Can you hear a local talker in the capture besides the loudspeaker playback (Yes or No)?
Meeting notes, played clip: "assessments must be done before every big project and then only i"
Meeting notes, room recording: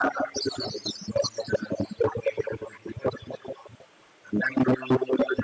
No